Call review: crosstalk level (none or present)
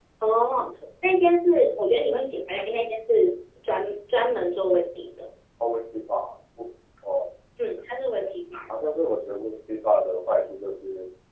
none